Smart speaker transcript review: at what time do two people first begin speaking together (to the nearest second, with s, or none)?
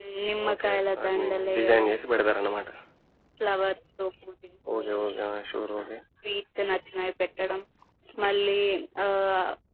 1 s